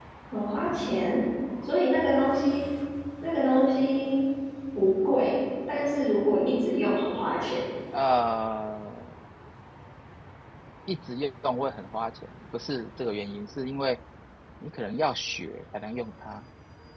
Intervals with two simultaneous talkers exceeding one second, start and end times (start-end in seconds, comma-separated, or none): none